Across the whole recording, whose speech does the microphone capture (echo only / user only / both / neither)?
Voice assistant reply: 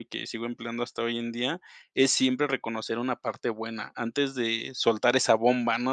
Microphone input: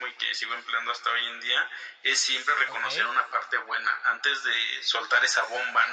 both